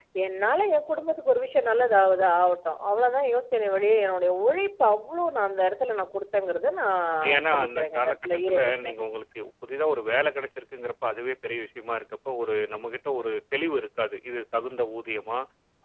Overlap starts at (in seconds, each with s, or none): 7.2 s